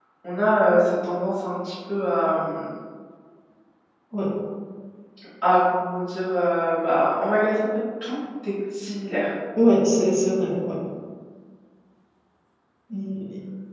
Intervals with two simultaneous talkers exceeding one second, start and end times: none

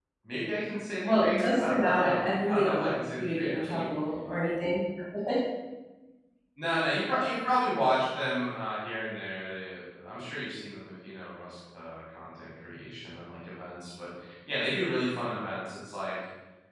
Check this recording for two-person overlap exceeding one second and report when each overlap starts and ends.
1.0-3.8

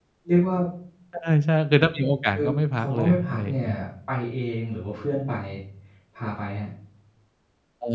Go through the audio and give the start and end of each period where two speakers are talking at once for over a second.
2.3-3.7

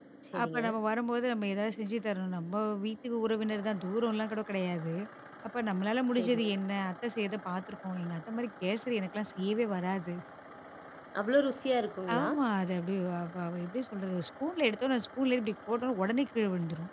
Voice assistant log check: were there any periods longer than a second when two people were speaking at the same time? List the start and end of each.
none

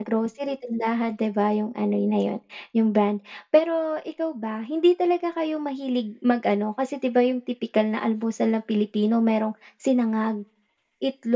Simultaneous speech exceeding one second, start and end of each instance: none

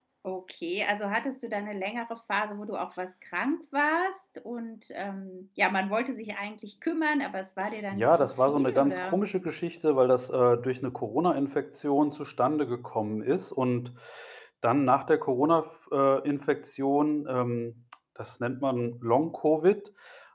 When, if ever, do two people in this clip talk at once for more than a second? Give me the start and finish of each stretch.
7.9-9.2

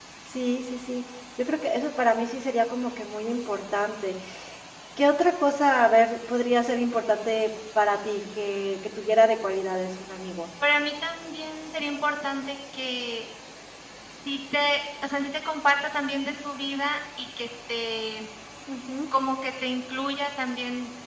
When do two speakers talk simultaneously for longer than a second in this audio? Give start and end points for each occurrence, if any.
none

